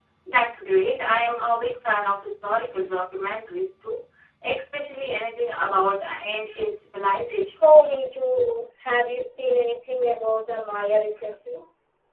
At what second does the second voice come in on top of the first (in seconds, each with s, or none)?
none